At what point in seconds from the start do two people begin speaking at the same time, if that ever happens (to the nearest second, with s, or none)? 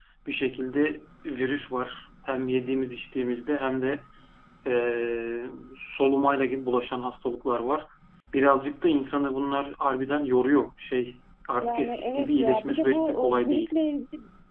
12 s